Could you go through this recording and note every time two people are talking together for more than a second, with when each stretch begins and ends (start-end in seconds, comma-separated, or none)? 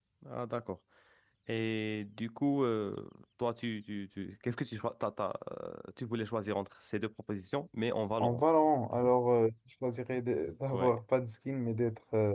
none